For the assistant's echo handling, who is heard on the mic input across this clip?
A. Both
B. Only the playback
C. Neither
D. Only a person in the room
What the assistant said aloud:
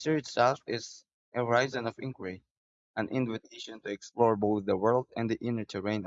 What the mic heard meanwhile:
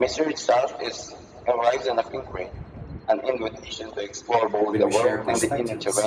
A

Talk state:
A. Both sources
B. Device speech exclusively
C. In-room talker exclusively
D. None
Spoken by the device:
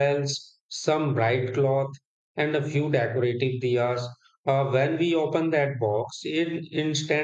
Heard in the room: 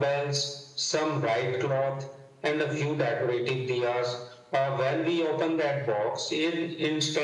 B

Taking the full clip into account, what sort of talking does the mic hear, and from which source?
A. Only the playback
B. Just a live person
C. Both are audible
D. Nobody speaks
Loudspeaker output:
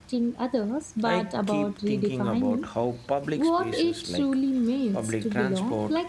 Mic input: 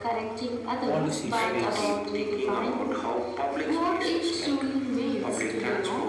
C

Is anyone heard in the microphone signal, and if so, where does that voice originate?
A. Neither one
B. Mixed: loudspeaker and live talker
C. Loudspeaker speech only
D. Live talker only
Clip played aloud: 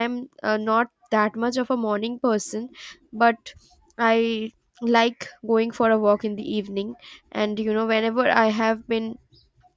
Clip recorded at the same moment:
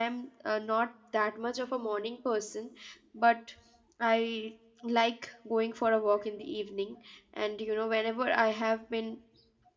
C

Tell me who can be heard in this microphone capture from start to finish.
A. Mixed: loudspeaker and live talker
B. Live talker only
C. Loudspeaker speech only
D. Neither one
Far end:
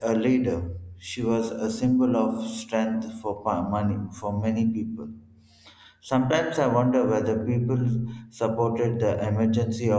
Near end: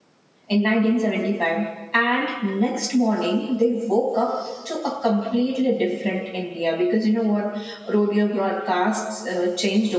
B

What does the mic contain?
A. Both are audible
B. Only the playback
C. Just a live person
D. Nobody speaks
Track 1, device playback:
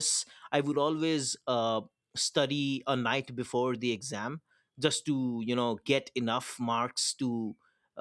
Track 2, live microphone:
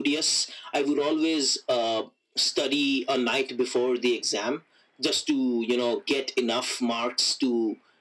B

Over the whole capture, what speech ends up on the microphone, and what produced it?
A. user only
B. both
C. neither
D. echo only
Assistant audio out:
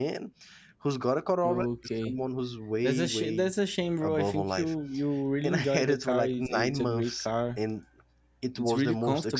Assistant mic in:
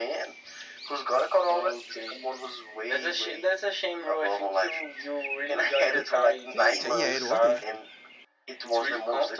B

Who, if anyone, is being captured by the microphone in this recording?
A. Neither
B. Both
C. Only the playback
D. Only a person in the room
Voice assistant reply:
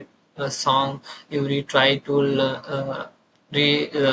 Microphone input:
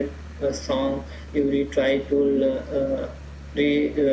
C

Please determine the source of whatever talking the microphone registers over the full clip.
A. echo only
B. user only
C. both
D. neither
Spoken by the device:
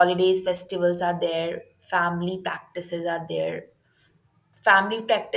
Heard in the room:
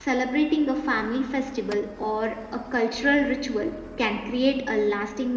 B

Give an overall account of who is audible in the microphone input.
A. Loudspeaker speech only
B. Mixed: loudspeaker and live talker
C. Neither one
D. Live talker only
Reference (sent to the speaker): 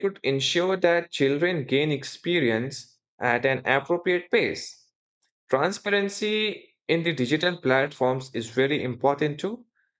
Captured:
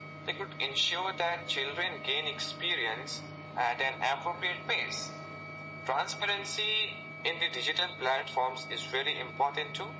A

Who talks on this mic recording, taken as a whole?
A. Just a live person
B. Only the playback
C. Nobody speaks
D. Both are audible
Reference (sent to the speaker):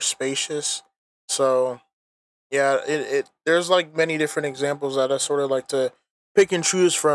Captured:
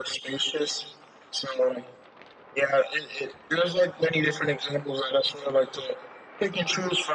B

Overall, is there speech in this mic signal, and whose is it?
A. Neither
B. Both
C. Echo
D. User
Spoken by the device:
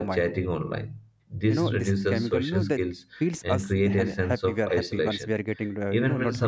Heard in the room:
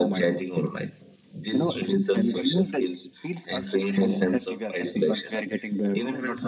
C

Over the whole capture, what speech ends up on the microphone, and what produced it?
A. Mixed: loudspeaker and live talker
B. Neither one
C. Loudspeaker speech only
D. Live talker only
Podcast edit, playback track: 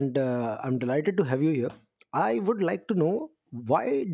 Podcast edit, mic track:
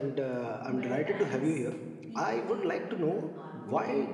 A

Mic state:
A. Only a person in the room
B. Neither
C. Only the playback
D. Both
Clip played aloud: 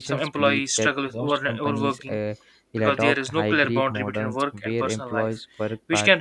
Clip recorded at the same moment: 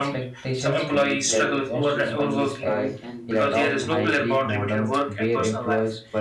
D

